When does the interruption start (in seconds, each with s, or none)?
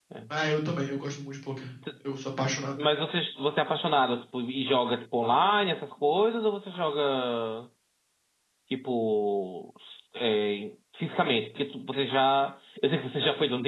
none